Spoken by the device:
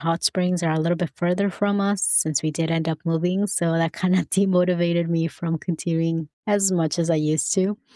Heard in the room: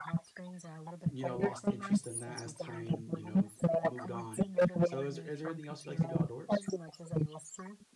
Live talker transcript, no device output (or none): you know, lost interest in that as time, you know, moved on. So is there is there anything else you like to do outdoors?